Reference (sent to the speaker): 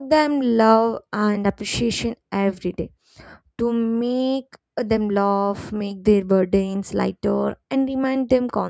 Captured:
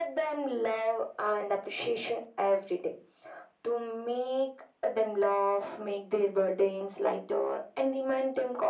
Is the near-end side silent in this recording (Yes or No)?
Yes